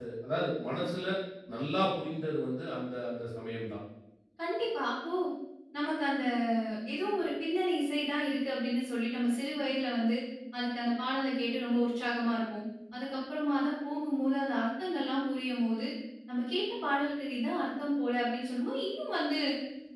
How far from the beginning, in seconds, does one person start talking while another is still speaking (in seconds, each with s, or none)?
none